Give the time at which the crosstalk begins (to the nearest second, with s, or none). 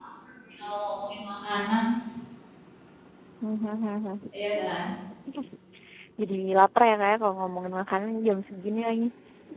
none